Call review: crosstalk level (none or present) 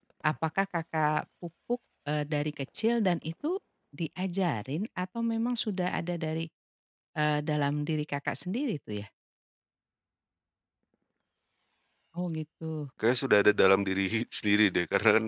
none